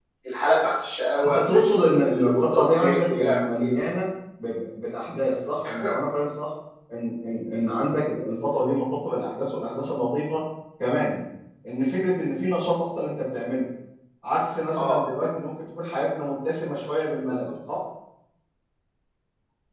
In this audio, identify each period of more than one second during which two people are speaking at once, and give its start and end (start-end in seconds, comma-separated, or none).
1.9-3.7